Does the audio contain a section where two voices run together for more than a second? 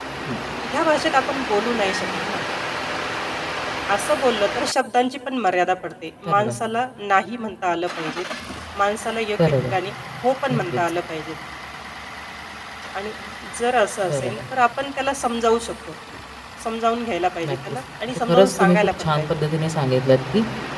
Yes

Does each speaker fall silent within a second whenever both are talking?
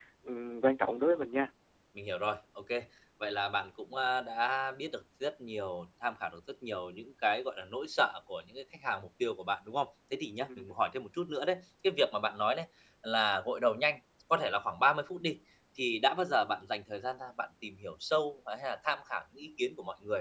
Yes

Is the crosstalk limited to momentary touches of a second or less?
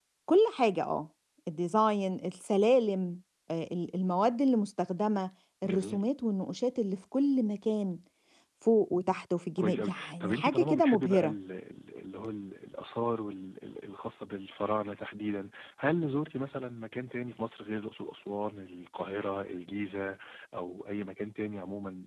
No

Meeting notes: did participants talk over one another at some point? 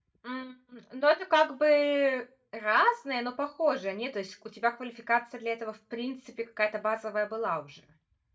No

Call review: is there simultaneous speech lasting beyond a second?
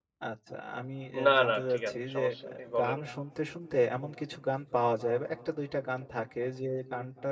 Yes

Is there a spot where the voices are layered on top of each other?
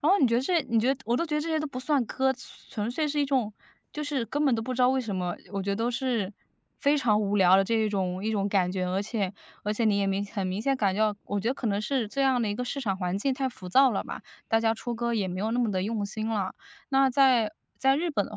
No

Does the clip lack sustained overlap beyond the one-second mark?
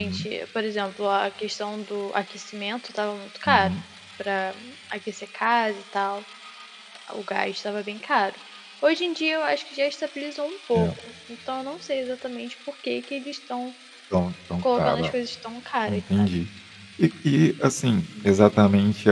Yes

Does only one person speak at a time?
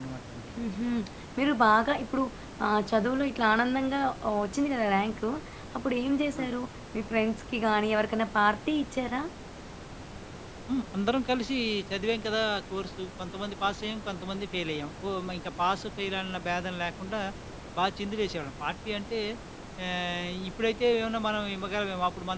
Yes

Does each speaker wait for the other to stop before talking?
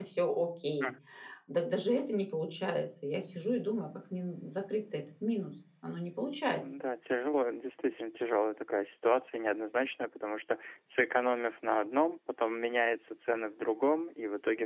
Yes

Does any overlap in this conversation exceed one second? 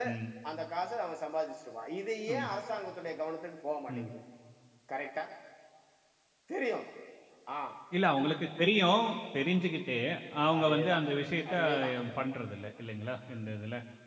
No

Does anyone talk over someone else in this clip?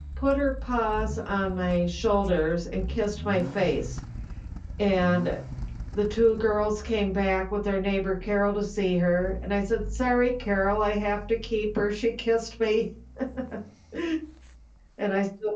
No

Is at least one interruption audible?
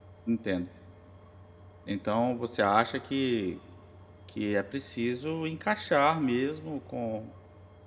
No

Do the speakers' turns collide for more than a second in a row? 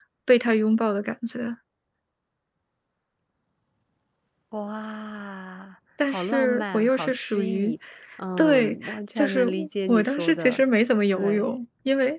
Yes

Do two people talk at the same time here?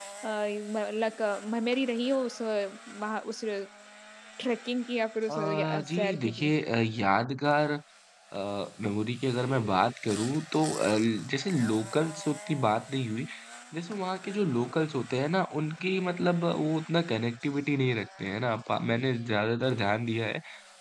Yes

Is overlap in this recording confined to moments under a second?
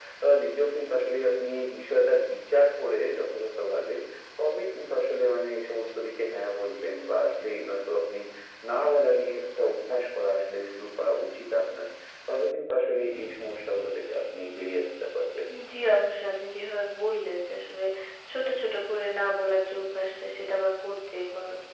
Yes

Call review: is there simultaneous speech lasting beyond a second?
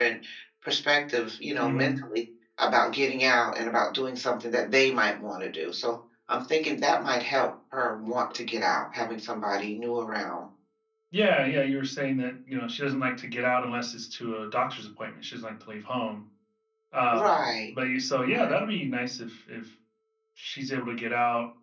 No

